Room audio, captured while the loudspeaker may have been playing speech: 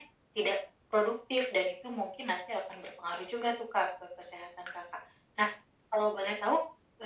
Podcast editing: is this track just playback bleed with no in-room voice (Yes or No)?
Yes